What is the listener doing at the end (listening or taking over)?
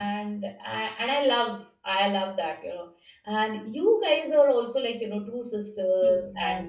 taking over